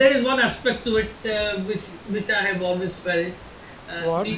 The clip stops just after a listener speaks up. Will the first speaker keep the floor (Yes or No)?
Yes